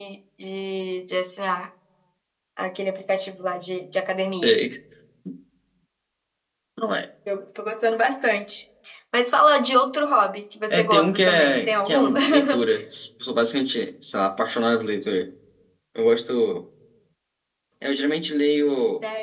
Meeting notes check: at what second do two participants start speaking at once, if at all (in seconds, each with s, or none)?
10.7 s